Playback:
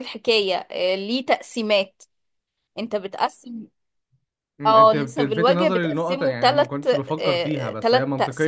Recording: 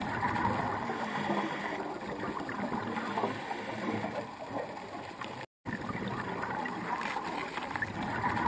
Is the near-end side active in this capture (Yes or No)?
No